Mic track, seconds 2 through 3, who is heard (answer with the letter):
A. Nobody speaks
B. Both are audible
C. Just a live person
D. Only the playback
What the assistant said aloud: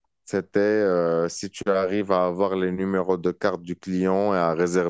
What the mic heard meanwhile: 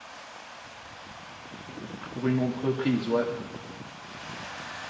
C